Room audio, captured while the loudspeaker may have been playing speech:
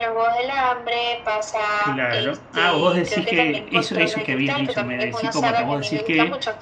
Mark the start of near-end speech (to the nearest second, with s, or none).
2 s